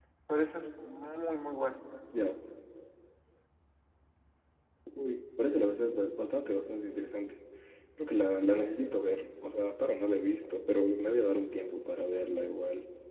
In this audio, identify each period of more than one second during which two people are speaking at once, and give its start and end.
none

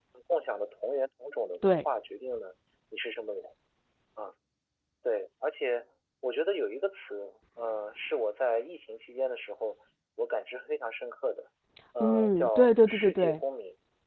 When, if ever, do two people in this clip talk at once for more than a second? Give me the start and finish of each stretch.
12.0-13.4

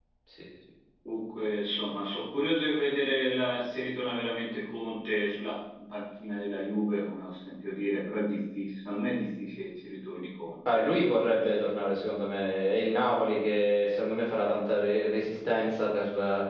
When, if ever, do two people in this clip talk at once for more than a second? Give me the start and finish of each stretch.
none

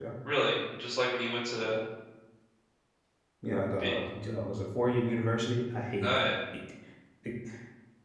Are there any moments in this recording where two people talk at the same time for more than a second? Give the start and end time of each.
none

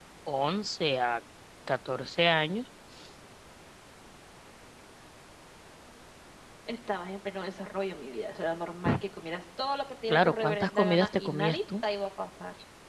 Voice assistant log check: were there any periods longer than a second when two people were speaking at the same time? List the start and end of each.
10.1-11.6

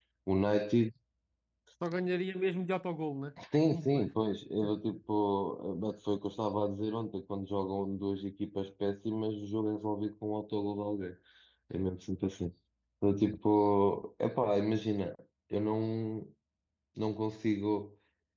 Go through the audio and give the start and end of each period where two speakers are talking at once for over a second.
none

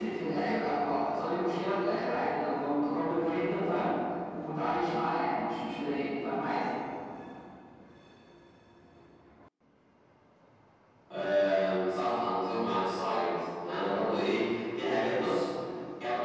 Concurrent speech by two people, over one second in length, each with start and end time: none

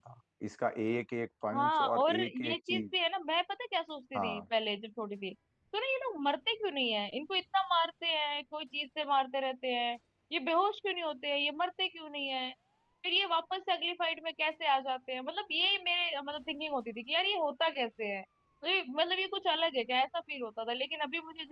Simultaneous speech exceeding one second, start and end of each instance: 1.5-2.8

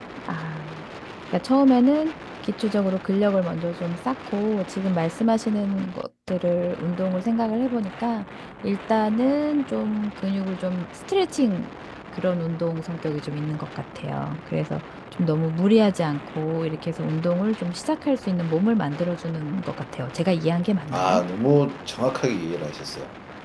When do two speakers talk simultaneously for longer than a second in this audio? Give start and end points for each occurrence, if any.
none

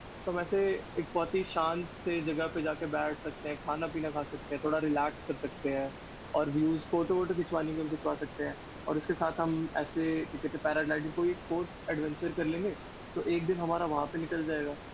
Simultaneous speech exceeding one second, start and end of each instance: none

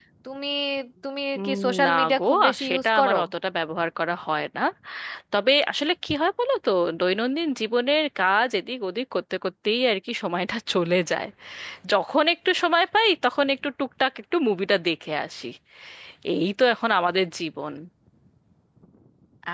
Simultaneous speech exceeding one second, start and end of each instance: 1.4-3.2

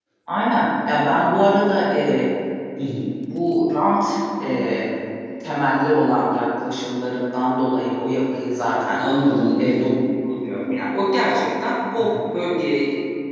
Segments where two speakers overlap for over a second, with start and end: none

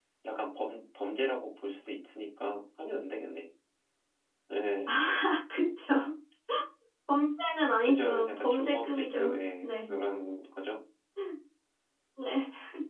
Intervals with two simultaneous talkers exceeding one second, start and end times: 7.8-9.9

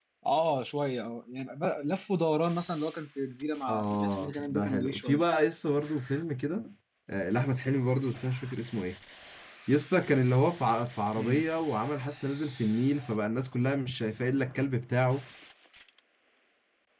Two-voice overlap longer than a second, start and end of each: 3.7-5.2

